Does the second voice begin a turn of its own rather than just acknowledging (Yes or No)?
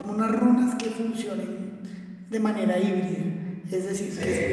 No